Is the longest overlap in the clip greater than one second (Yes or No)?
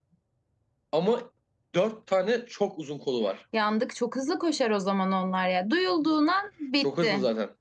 No